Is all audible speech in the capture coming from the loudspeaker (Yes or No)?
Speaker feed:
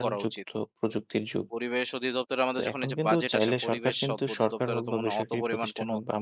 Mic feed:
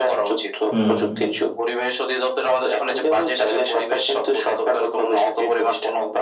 No